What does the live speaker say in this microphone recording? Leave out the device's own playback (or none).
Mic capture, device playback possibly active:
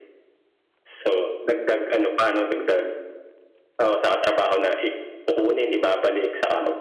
none